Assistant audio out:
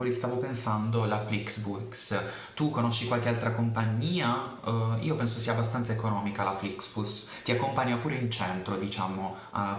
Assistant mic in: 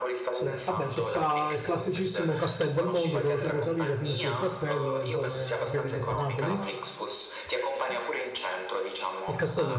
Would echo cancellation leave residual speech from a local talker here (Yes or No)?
Yes